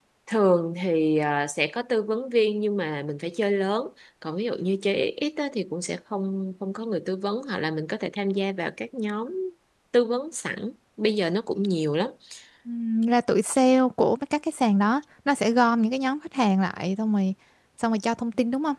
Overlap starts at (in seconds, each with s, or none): none